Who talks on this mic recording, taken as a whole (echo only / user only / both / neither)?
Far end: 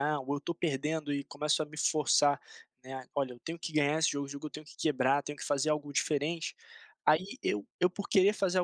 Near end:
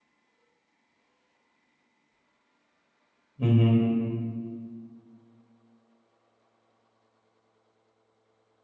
user only